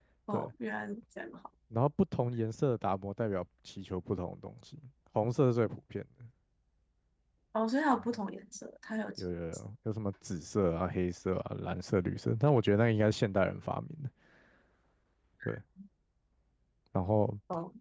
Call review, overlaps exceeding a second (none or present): none